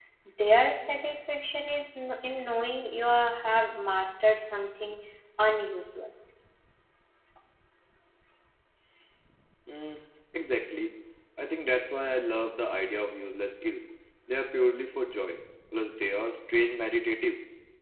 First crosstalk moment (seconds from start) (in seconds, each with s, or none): none